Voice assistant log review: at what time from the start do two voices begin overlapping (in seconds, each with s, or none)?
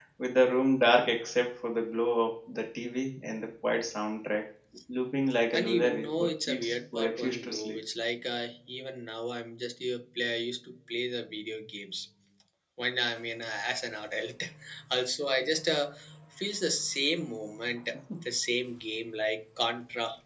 5.5 s